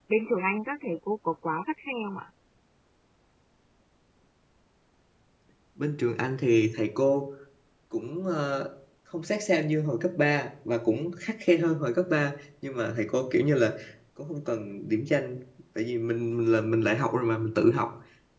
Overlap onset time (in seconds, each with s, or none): none